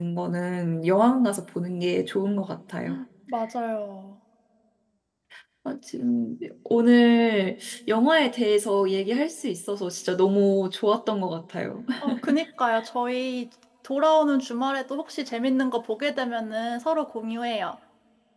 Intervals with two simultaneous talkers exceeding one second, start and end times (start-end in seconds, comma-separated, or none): none